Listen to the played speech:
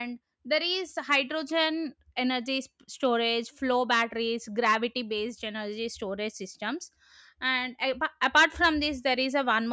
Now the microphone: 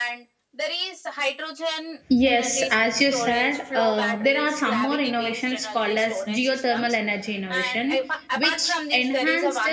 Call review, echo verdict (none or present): present